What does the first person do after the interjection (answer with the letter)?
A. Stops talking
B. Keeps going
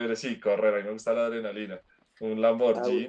B